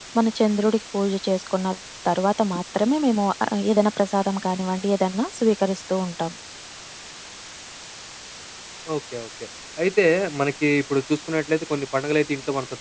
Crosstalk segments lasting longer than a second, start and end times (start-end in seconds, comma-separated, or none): none